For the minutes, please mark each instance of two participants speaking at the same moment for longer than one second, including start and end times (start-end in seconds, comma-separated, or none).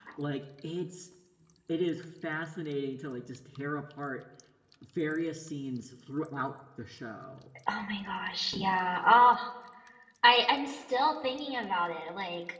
none